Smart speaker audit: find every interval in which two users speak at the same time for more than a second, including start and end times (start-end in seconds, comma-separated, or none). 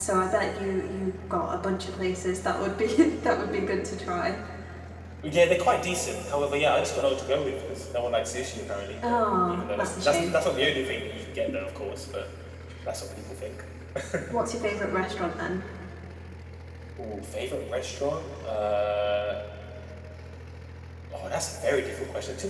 9.1-10.3